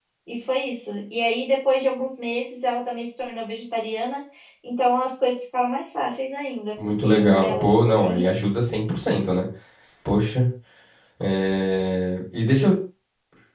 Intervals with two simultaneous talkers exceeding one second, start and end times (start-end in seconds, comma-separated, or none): 7.0-8.3